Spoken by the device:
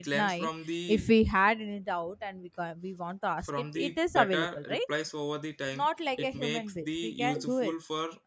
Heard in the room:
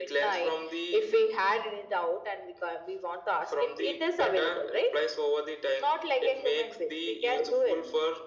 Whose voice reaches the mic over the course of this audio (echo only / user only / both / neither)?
echo only